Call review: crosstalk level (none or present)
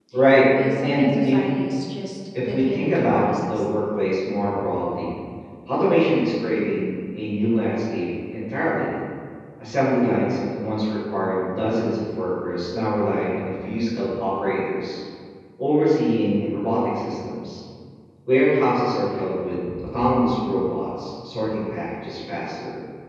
present